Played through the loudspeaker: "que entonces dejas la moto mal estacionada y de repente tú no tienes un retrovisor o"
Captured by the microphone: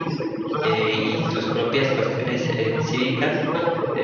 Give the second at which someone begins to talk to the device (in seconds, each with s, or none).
0.6 s